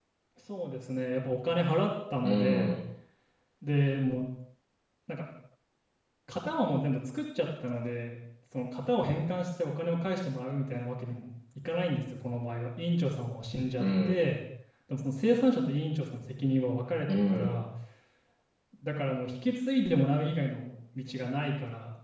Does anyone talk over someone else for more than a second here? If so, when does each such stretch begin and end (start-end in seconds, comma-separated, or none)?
none